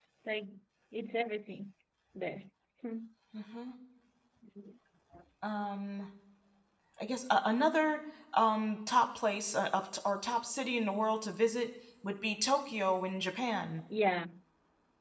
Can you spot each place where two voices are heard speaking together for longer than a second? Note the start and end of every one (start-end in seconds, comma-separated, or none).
none